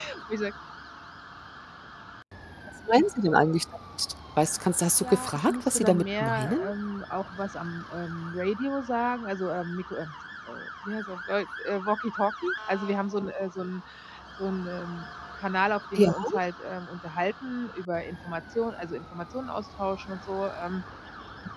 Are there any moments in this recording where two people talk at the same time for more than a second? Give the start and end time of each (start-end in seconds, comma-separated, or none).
5.0-6.6